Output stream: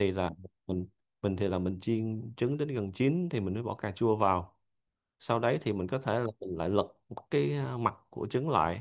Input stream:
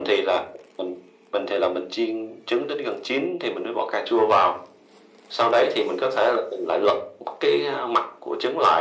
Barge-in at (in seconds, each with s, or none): none